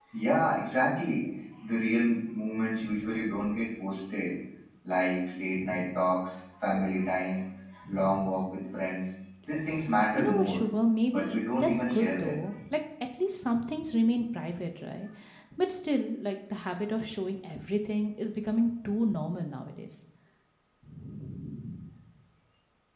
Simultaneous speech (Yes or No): Yes